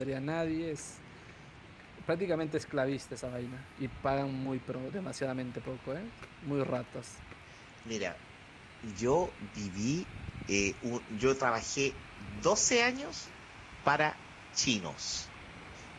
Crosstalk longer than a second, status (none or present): none